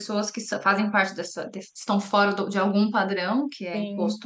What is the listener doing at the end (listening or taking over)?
listening